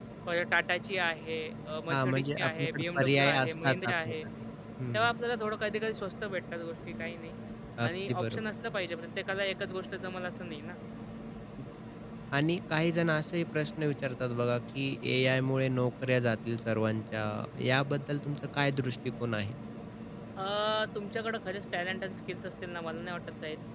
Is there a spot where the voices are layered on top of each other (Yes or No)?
Yes